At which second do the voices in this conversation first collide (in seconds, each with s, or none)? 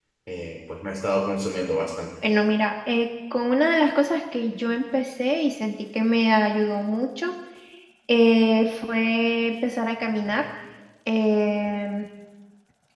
none